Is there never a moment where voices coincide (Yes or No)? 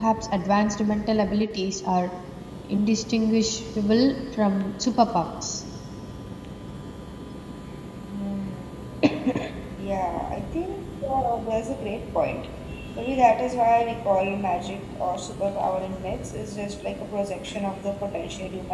Yes